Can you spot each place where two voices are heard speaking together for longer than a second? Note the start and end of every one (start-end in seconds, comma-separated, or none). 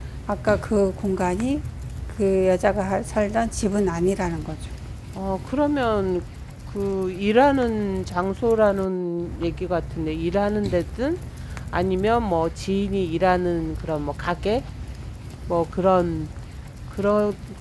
none